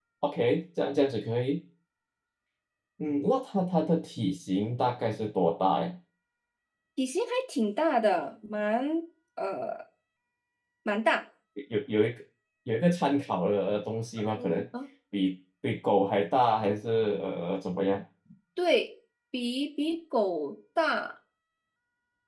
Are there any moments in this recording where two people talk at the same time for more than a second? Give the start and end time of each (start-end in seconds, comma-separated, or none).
none